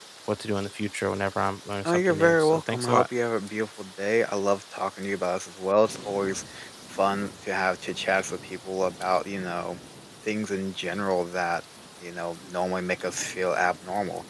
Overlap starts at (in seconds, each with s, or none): 1.9 s